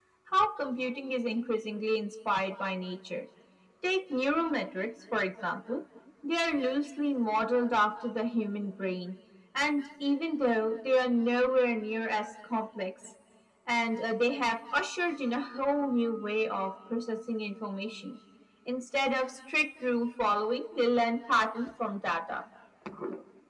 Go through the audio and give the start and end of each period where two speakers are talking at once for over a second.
none

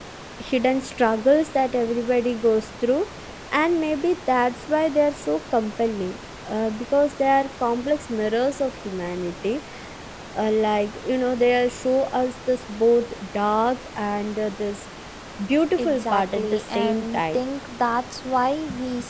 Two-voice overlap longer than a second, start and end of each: 15.8-17.4

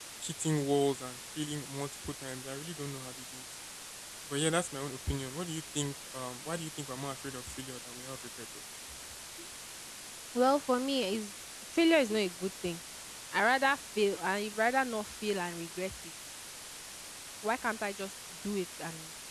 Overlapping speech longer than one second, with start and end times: none

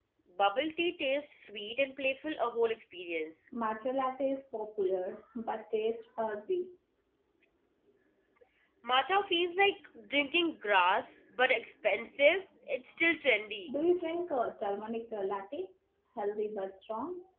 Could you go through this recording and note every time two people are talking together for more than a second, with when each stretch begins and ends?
none

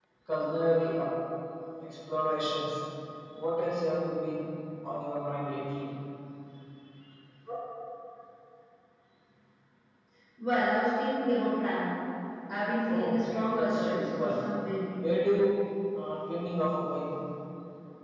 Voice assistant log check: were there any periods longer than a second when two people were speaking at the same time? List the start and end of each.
12.9-14.4

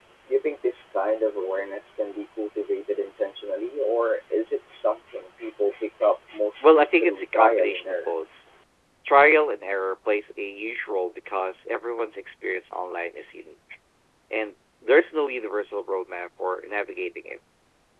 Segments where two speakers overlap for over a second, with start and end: 6.6-8.1

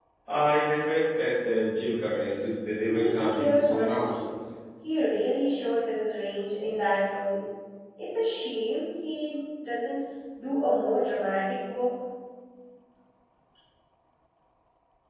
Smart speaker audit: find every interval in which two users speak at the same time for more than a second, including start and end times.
2.9-4.3

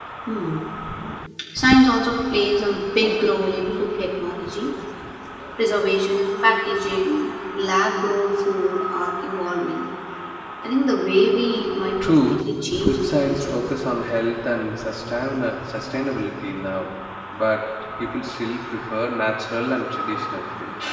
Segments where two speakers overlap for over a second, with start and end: 12.0-13.6

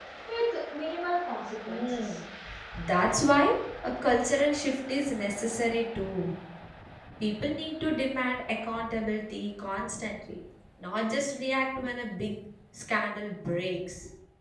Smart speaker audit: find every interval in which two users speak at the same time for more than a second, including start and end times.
none

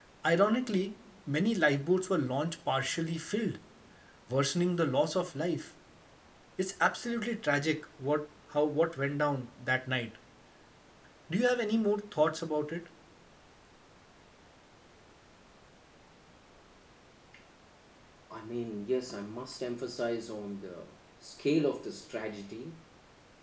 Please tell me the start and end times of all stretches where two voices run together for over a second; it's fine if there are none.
none

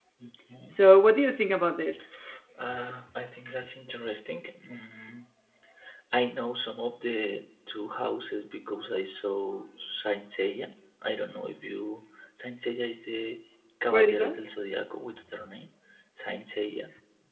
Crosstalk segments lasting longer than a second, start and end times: none

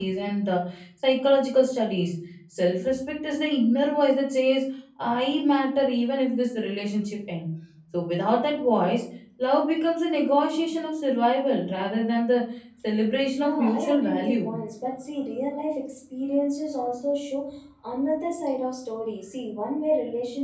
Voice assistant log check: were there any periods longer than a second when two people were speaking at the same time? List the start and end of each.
13.3-14.5

